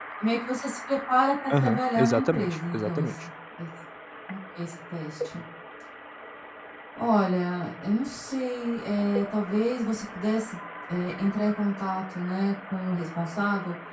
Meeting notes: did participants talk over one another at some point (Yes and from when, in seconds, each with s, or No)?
Yes, from 1.5 s